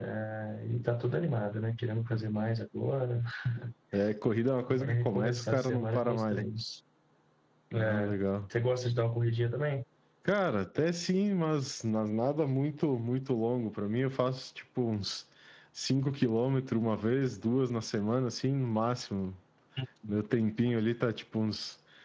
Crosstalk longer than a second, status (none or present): present